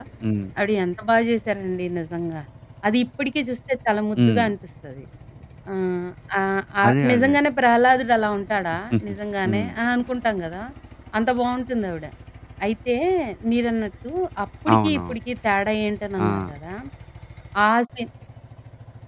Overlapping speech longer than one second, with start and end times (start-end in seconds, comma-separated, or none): none